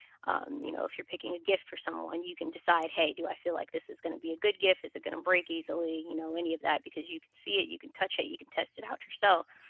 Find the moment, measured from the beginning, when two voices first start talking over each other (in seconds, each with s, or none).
none